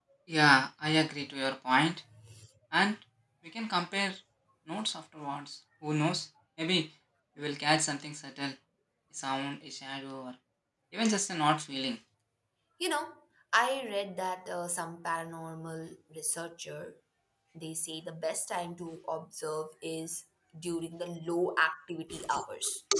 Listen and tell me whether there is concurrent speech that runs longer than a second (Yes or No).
No